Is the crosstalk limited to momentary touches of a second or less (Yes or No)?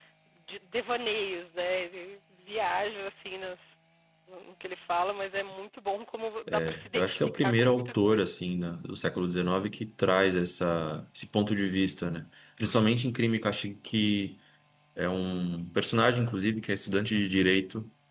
No